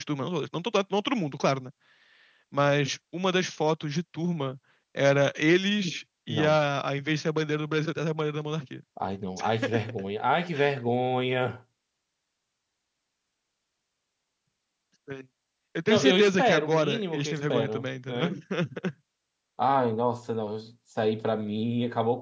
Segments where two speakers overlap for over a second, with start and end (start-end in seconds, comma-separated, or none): 15.9-18.2